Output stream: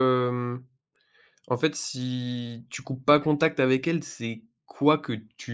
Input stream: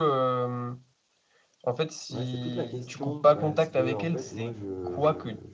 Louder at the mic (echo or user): echo